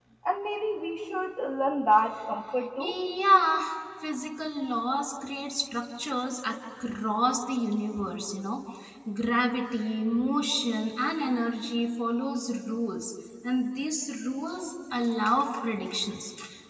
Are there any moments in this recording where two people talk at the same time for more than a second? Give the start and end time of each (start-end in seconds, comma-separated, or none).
none